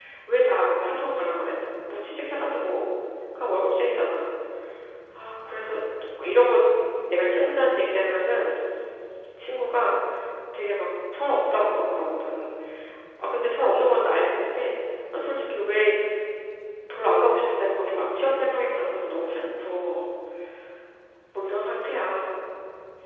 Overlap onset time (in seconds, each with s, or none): none